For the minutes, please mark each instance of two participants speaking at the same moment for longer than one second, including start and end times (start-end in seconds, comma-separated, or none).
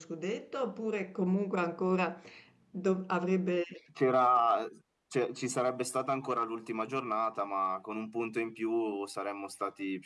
none